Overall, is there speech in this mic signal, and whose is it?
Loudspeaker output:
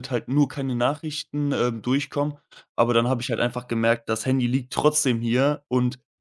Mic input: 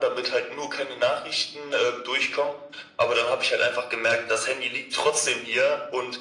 echo only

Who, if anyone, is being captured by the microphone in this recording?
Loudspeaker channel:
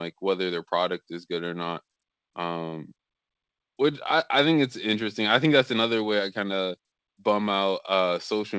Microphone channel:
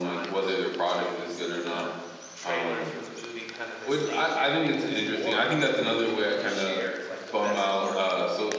both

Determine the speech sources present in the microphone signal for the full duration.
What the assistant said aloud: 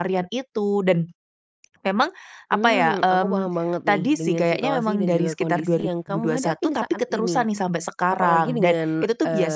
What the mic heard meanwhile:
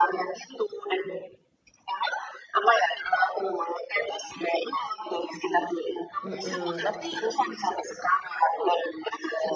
both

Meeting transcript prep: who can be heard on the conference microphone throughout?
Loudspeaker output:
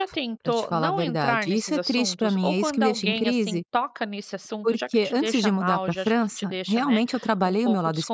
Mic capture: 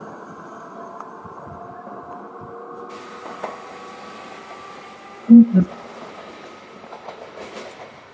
user only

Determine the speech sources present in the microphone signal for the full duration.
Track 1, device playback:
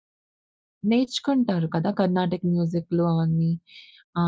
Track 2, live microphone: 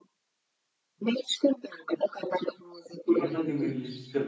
both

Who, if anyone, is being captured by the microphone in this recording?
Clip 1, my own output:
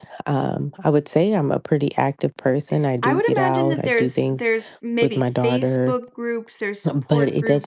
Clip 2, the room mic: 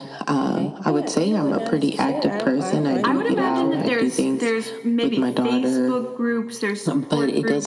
both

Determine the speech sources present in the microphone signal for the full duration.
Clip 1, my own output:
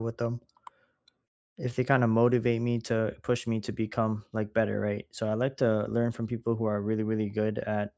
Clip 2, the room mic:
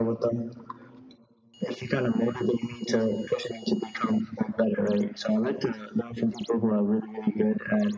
echo only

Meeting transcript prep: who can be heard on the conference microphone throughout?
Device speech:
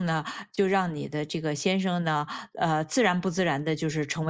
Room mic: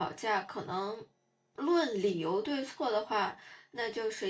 user only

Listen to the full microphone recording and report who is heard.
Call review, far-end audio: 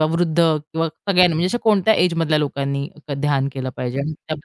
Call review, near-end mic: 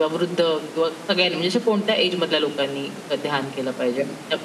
echo only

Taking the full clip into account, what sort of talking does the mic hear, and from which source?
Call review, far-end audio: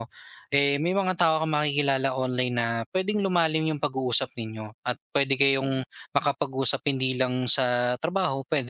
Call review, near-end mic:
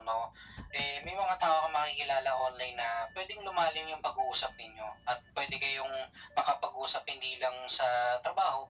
echo only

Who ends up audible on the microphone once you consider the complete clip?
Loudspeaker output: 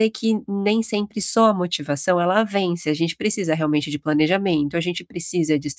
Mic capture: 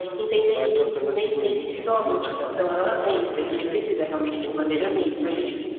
both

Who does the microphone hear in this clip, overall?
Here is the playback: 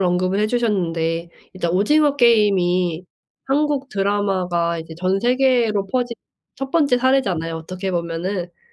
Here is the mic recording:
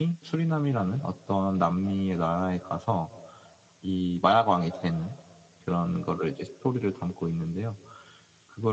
user only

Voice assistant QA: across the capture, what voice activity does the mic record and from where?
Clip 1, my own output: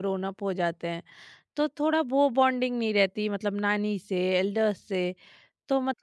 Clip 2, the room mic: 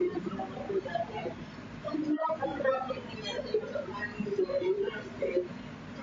echo only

